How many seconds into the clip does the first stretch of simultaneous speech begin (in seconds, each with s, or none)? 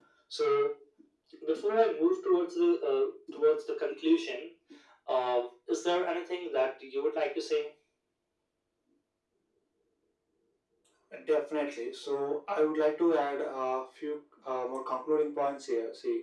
none